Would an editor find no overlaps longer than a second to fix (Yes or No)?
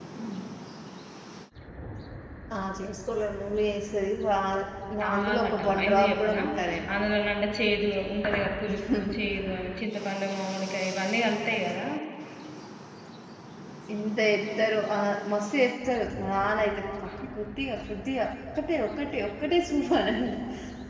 No